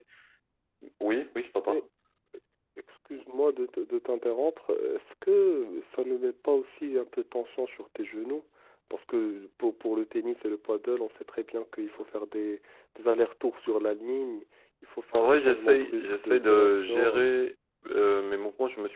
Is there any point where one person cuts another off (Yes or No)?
Yes